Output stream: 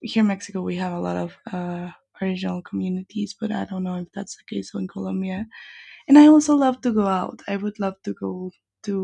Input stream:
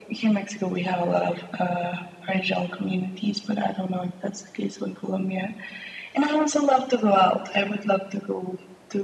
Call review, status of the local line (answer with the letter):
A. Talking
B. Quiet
B